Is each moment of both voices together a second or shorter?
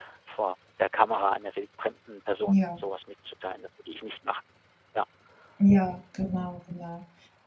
Yes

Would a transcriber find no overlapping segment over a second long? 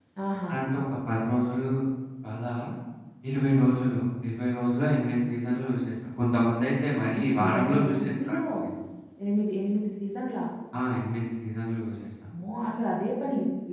No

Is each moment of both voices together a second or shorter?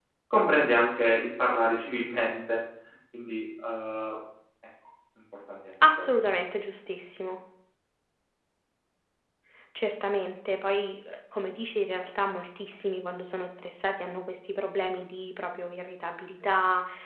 Yes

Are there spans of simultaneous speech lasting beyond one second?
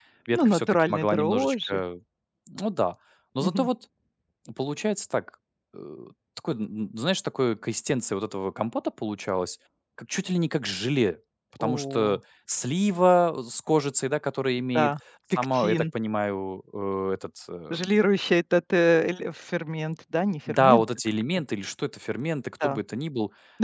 Yes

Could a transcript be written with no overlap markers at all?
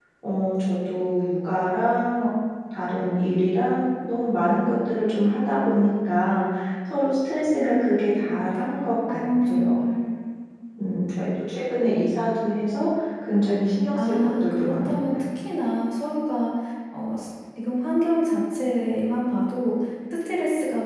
No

